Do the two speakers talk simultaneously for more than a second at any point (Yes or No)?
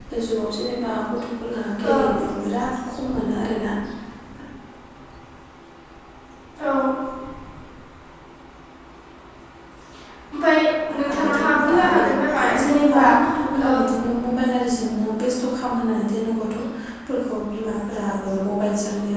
Yes